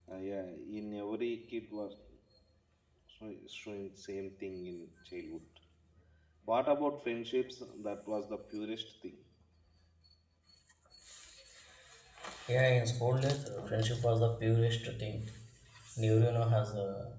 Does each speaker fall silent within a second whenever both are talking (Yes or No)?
Yes